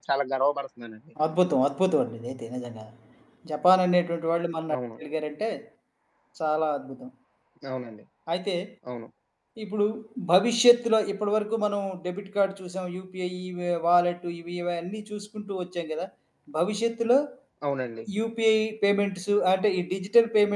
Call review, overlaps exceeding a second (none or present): none